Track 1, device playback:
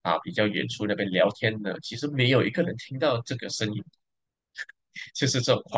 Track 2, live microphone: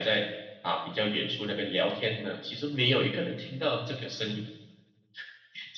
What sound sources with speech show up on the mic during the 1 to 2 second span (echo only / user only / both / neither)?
echo only